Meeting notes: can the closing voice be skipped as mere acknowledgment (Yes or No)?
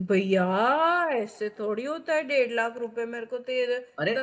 Yes